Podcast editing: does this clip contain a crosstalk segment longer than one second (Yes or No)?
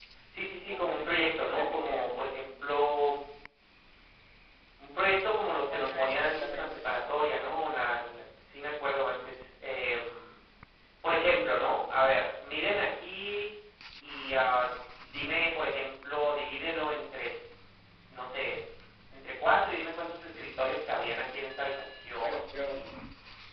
Yes